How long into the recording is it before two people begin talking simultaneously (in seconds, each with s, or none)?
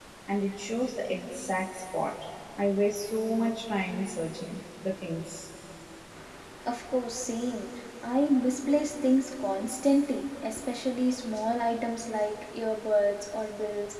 none